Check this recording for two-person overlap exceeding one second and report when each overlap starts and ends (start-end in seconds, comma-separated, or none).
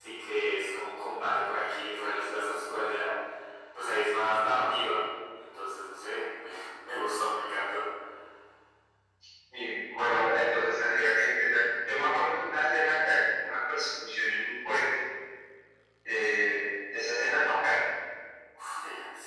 none